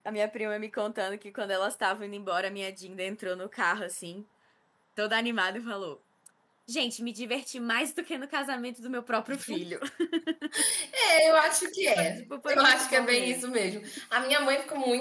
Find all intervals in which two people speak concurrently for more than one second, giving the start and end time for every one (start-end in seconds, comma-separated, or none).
12.0-13.4